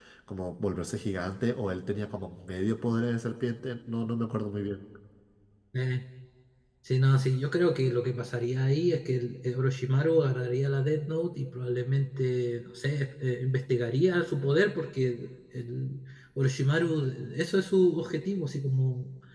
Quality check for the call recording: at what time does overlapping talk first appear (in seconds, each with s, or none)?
none